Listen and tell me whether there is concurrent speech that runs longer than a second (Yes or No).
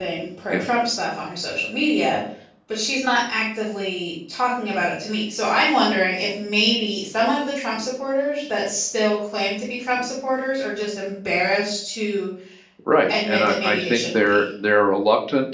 Yes